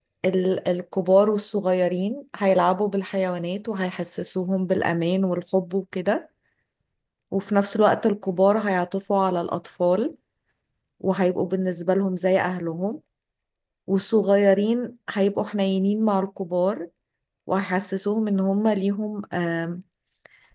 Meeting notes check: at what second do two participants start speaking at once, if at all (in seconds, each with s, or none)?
none